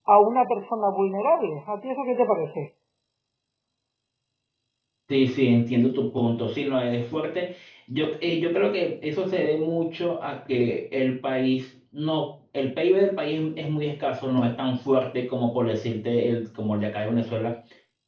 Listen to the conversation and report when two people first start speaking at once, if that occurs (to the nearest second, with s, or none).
none